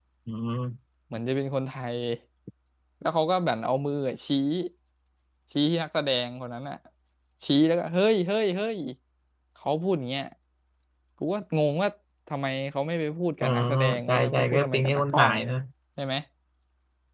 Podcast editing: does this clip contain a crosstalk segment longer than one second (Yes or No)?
Yes